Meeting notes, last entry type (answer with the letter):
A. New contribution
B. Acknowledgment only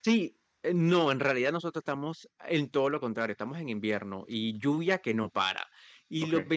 B